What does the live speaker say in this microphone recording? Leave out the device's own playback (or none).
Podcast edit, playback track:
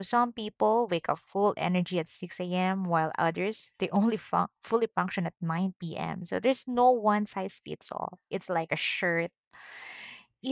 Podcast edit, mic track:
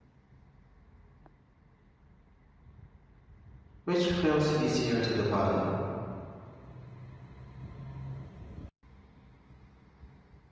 which feels easier to the body.